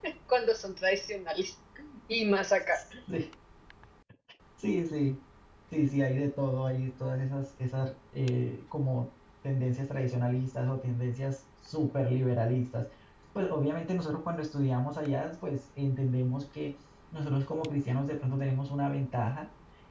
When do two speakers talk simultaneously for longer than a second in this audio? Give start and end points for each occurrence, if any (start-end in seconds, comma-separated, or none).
none